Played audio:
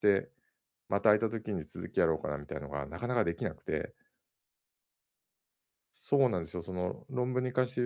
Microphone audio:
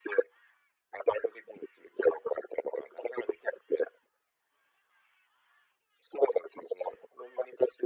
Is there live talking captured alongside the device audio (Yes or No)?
No